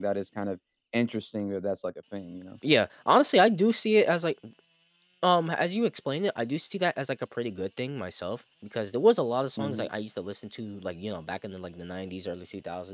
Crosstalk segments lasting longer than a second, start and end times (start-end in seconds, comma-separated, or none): none